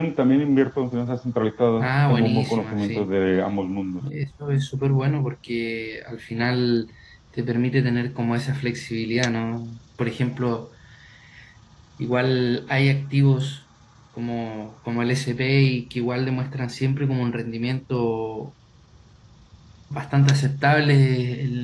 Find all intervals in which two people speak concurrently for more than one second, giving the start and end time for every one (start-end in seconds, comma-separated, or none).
1.8-3.1